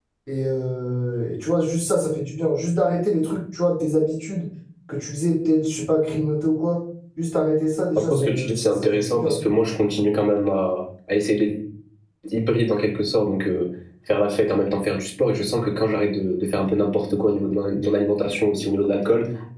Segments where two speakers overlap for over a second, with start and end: 8.0-9.4

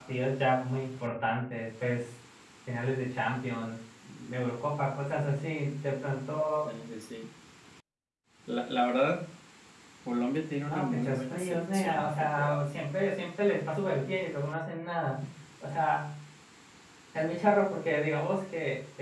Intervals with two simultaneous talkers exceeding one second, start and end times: 10.7-12.5

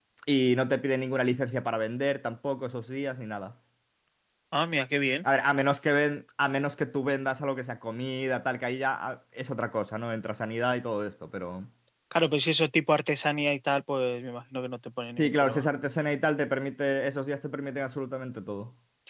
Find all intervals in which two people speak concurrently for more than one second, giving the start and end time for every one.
none

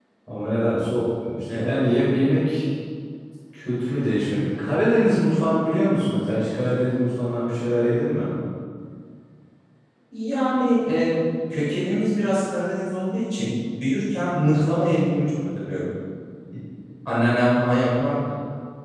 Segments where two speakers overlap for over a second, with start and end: none

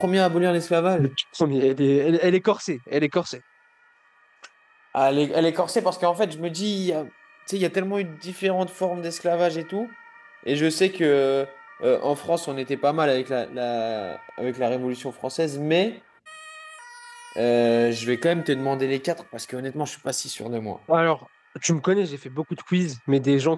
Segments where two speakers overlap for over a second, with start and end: none

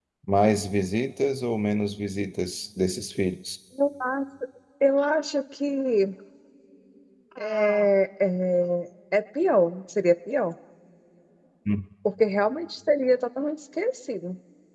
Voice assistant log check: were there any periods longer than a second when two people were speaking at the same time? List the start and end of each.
none

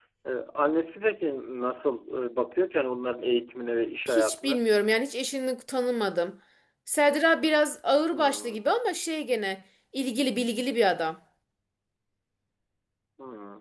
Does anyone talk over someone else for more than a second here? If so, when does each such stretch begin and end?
none

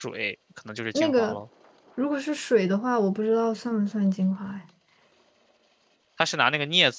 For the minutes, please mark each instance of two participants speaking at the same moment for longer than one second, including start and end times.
none

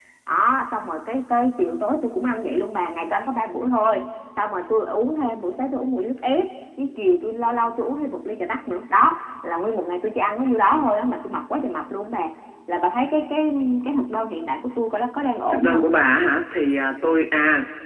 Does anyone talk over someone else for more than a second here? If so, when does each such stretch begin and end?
none

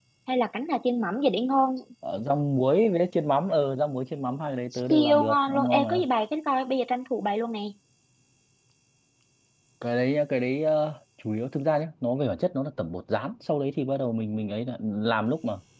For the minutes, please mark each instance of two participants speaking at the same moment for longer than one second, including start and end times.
4.8-6.0

